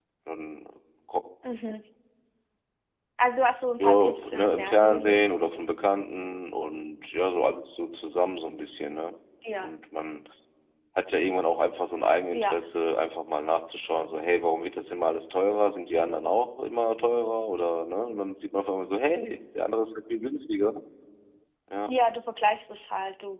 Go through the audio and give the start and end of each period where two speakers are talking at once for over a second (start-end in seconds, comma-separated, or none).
3.8-5.2